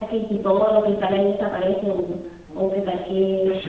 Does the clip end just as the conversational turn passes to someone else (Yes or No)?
Yes